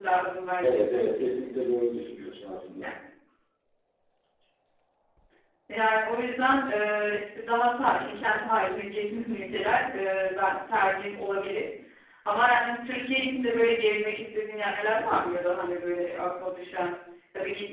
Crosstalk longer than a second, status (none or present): none